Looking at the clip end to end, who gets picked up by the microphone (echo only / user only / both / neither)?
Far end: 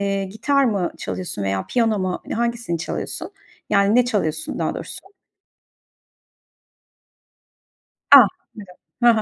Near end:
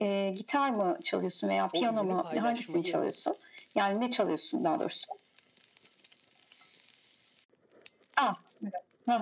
both